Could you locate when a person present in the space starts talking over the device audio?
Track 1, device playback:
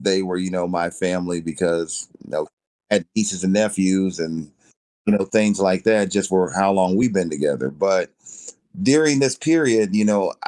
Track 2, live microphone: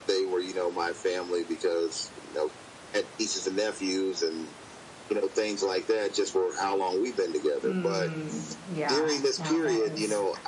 7.6 s

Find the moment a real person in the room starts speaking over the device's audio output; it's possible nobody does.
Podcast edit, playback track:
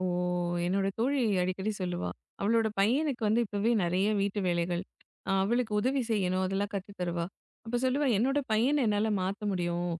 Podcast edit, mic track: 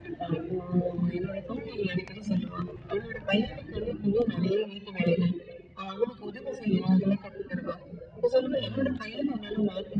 8.6 s

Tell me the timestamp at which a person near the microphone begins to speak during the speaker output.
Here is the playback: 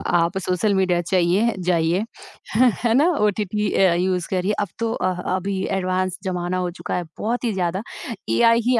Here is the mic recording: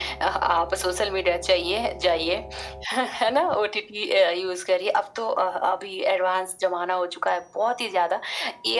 none

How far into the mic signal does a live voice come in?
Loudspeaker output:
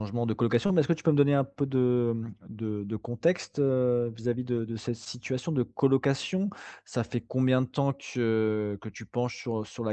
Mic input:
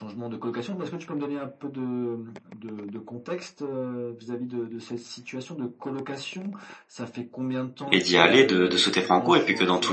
7.9 s

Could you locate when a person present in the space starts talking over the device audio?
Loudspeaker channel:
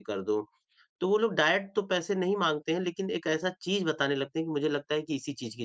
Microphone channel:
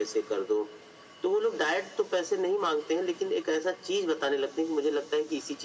none

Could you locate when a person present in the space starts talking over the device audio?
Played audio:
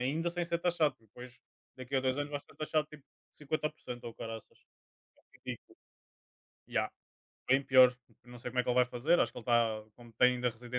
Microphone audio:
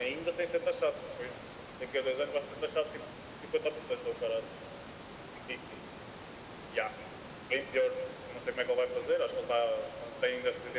none

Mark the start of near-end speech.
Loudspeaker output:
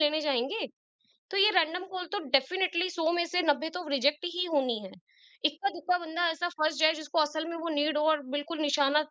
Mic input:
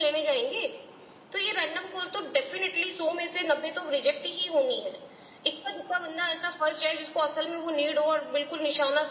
none

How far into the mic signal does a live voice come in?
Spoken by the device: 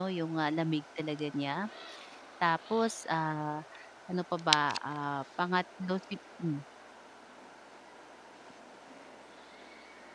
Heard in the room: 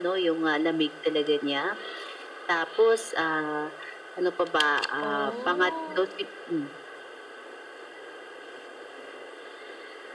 5.0 s

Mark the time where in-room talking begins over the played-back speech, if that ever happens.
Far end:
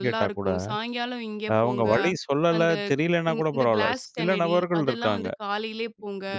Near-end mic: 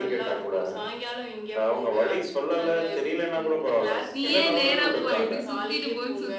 4.2 s

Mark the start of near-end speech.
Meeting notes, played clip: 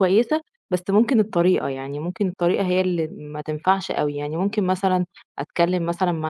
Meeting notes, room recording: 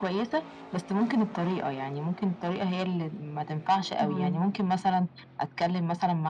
4.0 s

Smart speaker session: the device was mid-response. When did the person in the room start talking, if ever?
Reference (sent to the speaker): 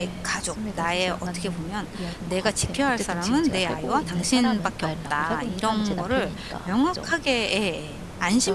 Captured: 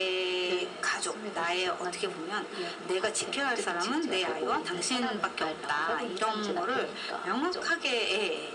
none

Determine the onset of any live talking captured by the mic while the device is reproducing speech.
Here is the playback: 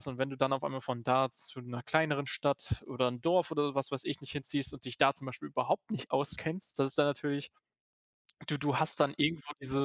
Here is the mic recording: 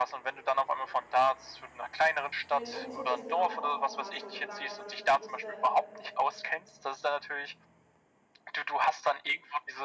2.5 s

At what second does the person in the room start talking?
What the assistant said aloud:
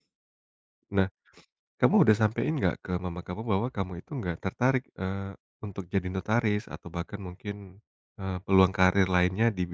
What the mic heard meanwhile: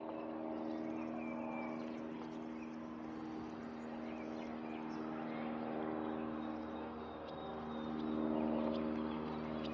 none

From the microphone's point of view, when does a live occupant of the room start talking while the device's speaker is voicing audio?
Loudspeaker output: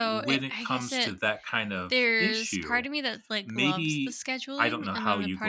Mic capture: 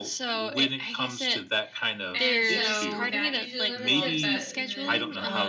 2.1 s

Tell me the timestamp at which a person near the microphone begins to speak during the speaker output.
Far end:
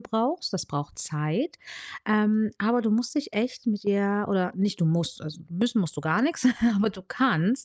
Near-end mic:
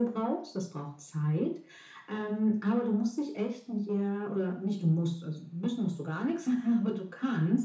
none

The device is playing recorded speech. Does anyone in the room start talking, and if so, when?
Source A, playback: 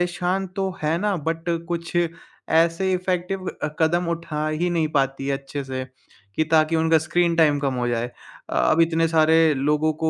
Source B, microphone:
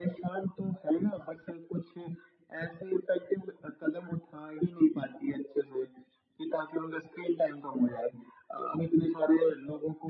none

